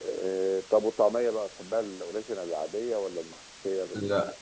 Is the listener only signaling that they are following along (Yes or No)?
No